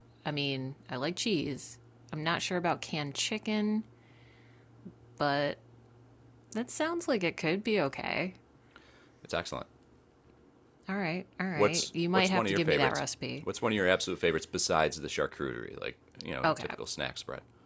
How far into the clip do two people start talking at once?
12 s

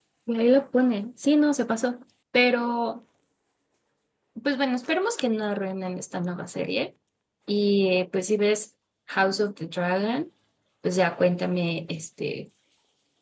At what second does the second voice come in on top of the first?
none

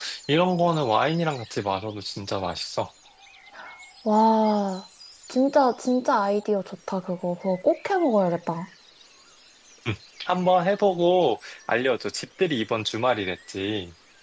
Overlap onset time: none

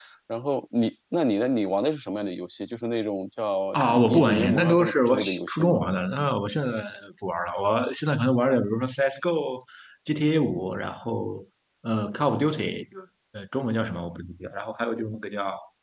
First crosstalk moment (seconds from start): 4 s

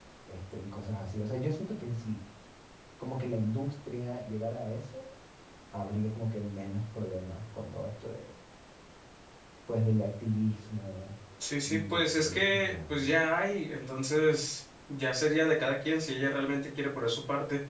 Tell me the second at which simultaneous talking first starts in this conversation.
12 s

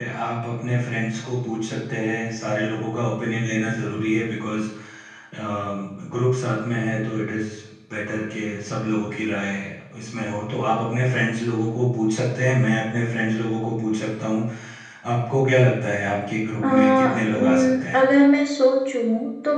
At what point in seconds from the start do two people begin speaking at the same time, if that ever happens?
17 s

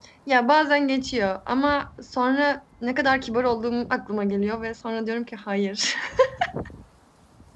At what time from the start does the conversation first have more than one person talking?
none

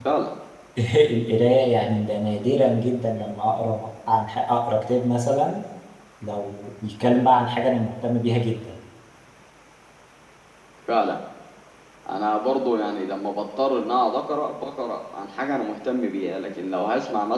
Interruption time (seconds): none

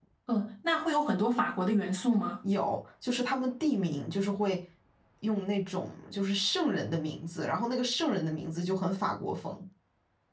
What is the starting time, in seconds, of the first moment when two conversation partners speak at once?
none

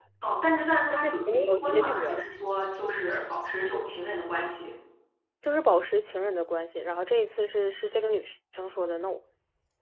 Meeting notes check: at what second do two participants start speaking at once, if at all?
1 s

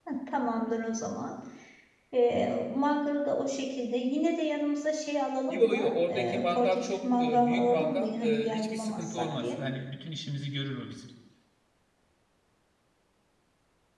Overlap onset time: 5 s

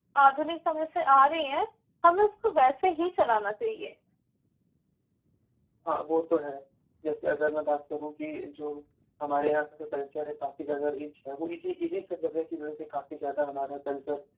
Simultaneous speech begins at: none

